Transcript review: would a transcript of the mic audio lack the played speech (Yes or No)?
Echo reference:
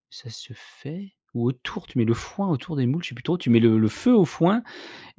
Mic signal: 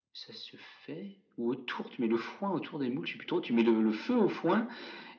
No